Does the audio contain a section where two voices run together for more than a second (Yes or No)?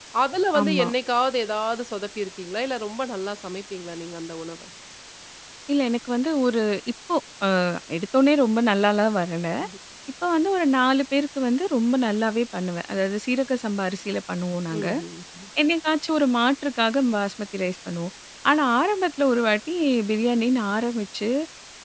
No